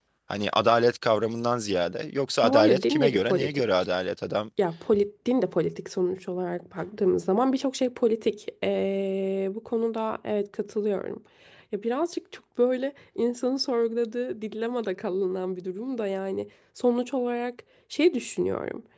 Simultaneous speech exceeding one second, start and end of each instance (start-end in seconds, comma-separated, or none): 2.4-3.9